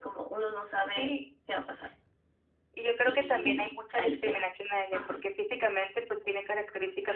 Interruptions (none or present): present